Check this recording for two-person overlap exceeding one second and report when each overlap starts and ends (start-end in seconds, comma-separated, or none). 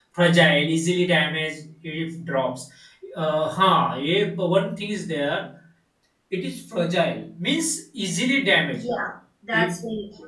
none